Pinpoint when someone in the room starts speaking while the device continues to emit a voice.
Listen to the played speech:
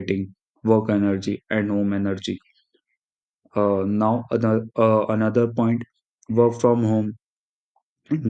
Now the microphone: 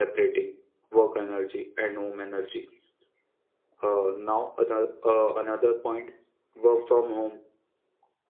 none

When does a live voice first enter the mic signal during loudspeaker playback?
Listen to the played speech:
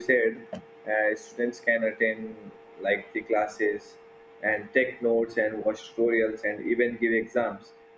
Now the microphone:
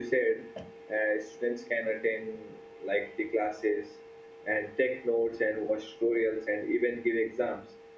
none

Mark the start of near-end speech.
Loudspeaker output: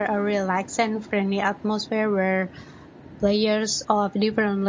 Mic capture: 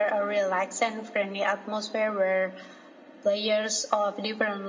none

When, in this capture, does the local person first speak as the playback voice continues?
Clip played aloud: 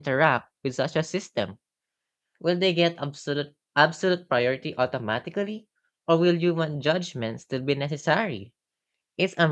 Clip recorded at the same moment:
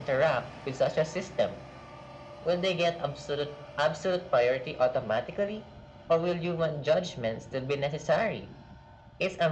none

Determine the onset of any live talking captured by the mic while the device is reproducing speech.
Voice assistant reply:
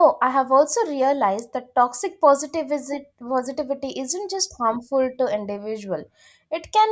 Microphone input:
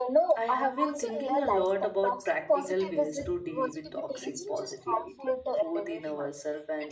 0 s

